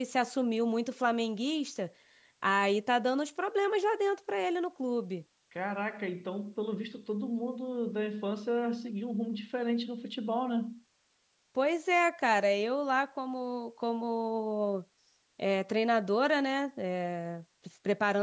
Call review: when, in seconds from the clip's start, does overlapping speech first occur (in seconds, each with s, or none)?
none